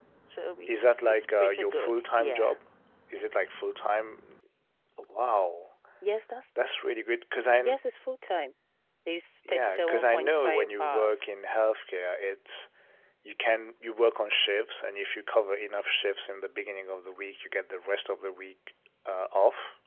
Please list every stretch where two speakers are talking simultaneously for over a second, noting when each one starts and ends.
0.7-2.5, 9.5-11.3

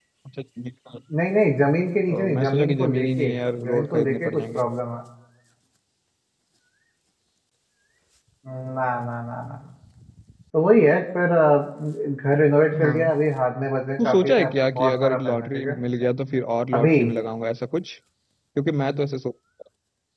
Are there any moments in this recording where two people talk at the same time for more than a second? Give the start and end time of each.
2.1-4.6, 14.0-15.8

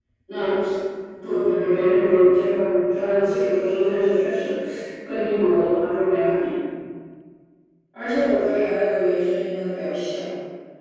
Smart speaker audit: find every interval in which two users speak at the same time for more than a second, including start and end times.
none

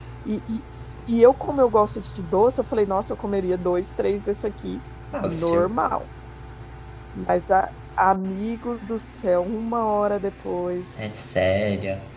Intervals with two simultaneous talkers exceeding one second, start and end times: none

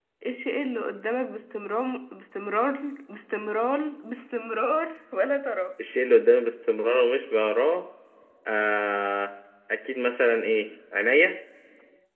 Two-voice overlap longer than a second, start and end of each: none

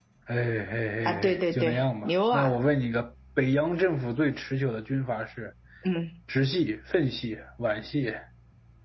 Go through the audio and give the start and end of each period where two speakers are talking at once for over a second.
1.1-2.6

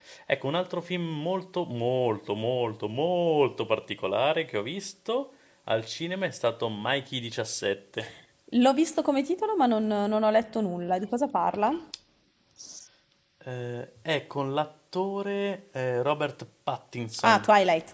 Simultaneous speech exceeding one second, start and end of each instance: none

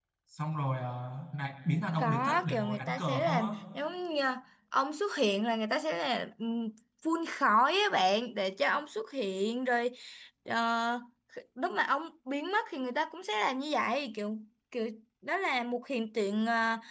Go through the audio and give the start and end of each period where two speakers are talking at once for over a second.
2.0-3.5

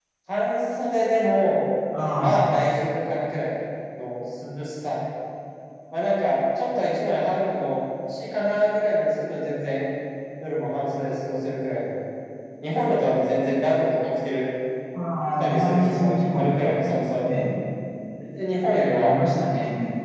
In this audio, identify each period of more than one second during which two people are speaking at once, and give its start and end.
15.4-16.7

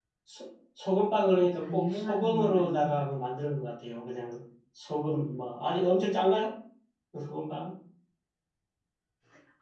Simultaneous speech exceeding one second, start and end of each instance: 1.6-3.0

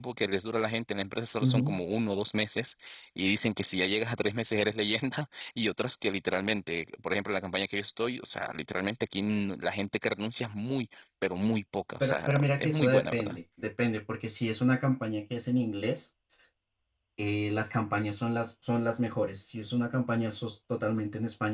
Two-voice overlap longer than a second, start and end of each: 12.0-13.4

